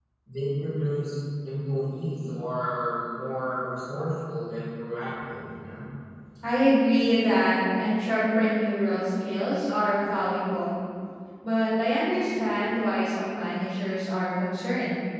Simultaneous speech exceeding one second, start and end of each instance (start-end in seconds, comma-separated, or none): none